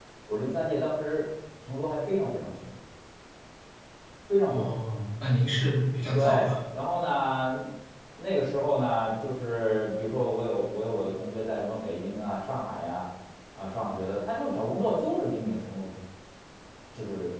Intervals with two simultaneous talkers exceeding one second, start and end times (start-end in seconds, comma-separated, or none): none